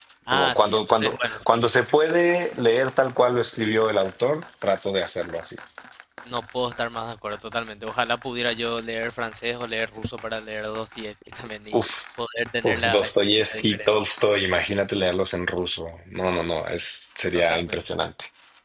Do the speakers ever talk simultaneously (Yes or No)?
Yes